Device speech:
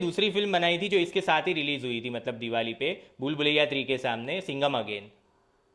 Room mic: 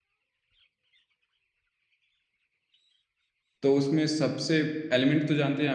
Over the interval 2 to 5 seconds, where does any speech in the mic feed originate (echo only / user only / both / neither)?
user only